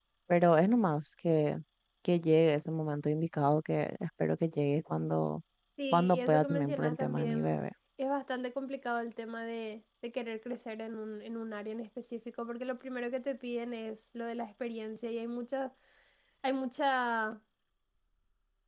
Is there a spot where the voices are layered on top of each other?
Yes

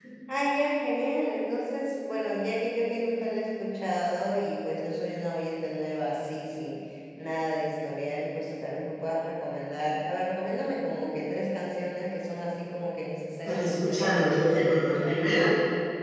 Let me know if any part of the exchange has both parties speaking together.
Yes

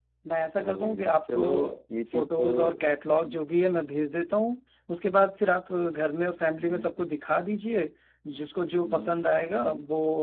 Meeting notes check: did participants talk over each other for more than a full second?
Yes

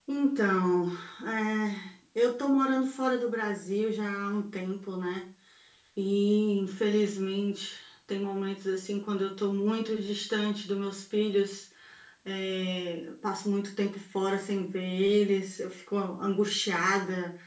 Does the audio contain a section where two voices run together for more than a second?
No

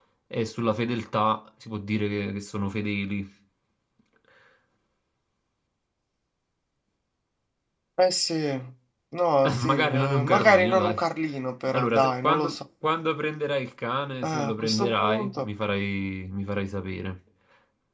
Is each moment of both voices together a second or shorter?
No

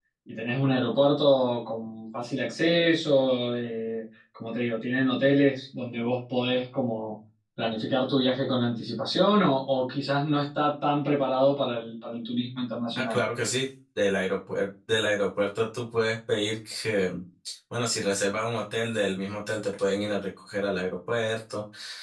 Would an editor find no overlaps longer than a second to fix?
Yes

